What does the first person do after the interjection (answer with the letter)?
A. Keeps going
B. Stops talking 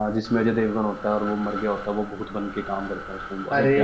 B